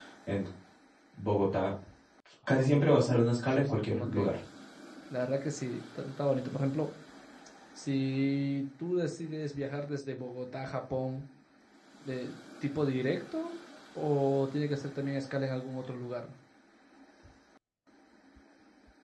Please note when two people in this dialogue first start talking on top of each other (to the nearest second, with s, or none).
2 s